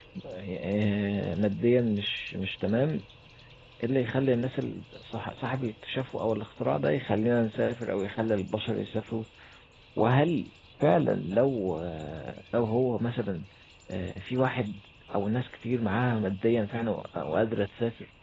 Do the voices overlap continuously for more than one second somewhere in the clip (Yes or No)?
No